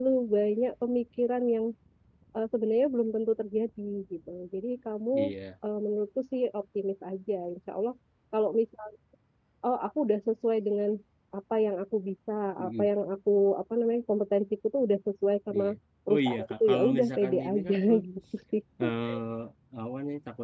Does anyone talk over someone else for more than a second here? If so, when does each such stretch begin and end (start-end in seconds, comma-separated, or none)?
16.1-18.0